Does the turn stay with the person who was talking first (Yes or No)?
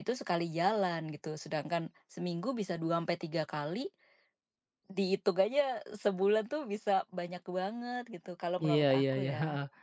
No